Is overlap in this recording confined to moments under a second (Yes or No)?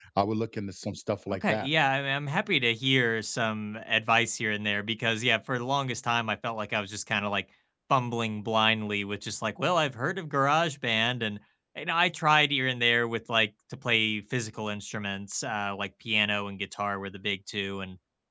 Yes